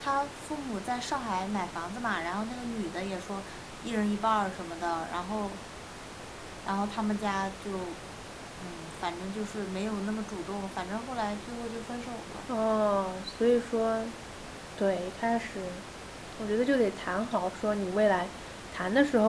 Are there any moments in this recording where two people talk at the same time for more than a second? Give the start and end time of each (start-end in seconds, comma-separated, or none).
none